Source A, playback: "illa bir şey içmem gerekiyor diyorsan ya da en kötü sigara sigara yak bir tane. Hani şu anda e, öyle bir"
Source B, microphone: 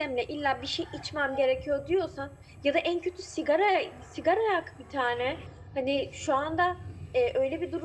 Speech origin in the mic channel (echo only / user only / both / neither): echo only